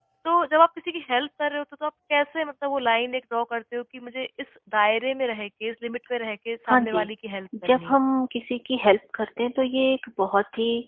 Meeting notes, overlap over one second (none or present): none